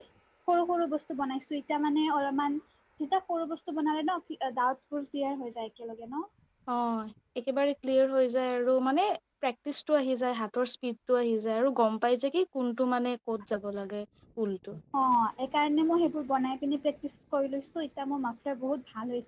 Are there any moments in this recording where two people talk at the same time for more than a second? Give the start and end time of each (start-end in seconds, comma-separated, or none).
none